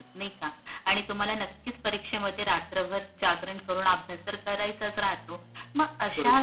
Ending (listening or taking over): listening